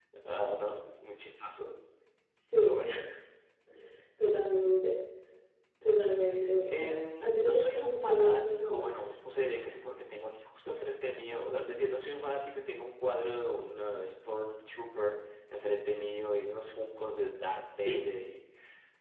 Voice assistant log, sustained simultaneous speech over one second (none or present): present